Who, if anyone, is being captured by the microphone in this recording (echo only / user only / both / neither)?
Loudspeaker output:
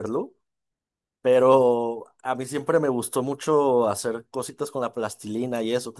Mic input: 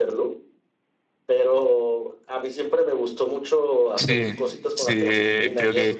both